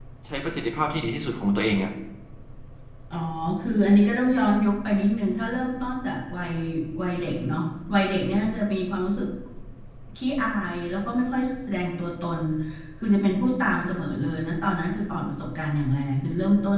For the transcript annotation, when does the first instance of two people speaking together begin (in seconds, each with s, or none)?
none